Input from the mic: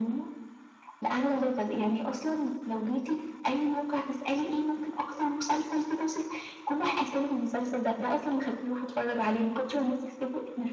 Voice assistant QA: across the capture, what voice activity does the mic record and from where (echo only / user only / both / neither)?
echo only